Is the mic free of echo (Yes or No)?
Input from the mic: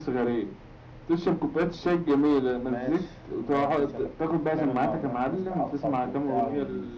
No